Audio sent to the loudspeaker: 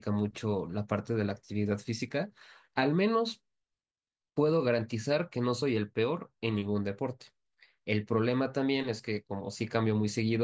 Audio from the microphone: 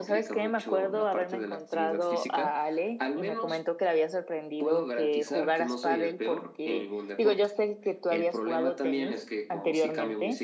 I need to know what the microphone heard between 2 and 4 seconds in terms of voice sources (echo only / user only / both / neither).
both